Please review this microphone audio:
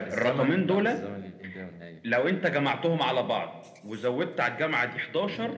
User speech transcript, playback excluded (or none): none